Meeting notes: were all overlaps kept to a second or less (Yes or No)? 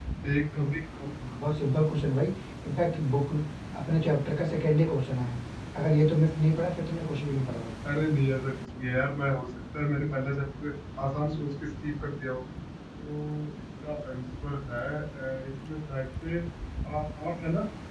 Yes